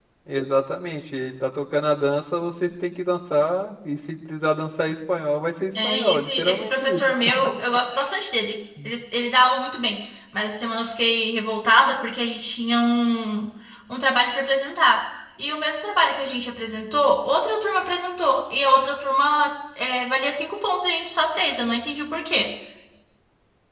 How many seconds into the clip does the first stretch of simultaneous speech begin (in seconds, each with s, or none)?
5.8 s